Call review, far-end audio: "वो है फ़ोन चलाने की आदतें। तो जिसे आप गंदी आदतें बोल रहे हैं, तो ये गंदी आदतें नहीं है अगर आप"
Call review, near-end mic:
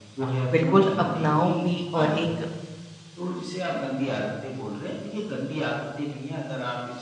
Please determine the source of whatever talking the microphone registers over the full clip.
both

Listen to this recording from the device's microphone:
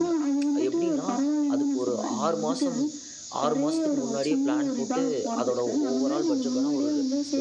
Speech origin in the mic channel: both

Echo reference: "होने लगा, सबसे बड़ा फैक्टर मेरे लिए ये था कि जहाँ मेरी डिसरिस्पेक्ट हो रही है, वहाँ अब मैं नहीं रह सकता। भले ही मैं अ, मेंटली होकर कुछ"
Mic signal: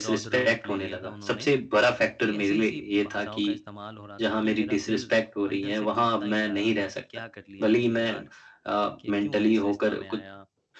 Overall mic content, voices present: both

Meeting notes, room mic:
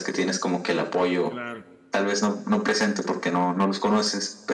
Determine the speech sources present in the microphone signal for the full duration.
both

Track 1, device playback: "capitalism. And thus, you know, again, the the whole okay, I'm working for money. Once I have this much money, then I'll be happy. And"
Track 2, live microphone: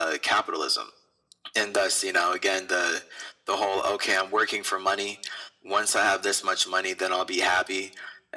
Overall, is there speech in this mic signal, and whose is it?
echo only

